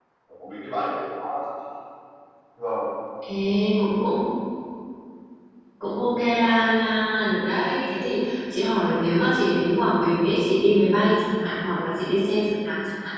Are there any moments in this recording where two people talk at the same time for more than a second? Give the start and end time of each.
none

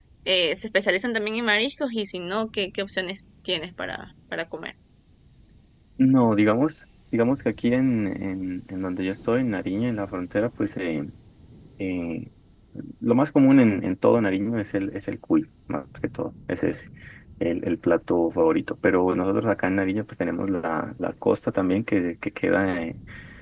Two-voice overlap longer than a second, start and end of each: none

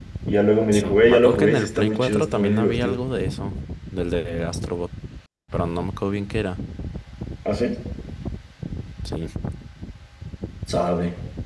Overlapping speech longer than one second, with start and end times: 0.7-3.0

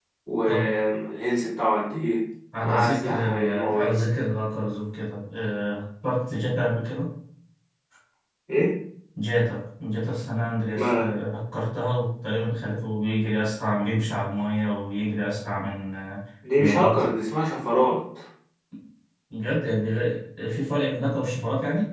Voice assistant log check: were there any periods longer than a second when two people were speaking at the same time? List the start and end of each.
2.6-3.9

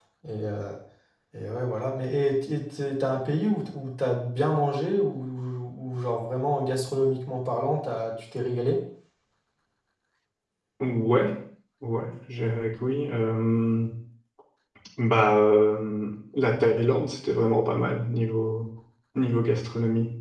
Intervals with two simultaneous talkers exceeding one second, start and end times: none

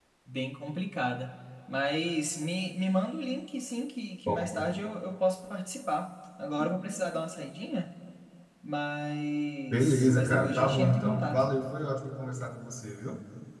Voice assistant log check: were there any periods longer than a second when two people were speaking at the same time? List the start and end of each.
9.7-11.4

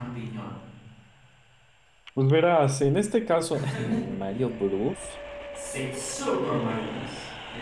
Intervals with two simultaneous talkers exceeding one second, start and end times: none

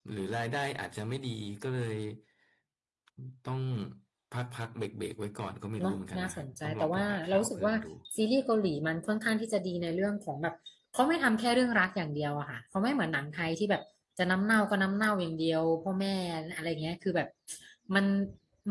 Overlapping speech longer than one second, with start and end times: 5.8-7.7

